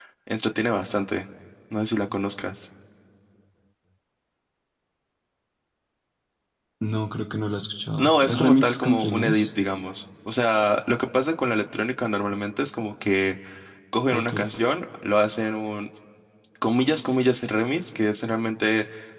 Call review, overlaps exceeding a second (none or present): present